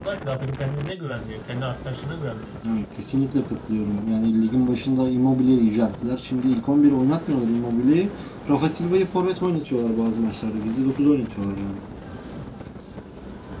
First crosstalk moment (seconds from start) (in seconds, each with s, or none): none